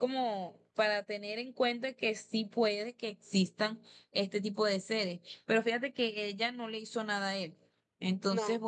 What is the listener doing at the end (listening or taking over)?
listening